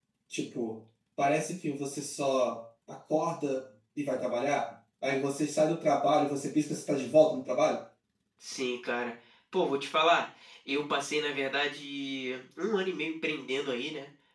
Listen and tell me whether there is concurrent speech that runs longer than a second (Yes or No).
No